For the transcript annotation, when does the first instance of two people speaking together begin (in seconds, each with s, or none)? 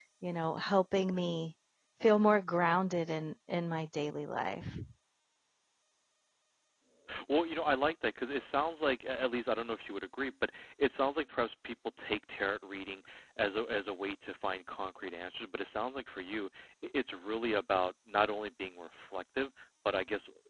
none